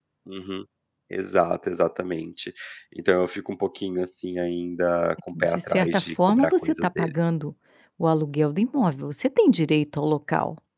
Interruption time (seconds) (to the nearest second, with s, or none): 5 s